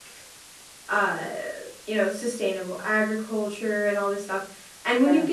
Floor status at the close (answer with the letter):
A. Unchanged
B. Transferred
A